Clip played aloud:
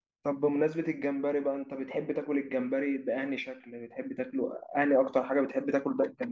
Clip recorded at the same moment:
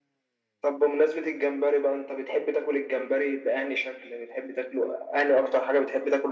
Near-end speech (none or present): none